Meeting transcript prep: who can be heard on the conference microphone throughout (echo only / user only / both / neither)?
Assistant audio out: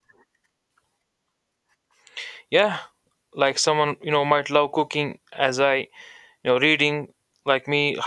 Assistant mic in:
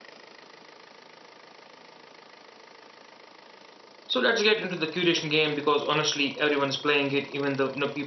user only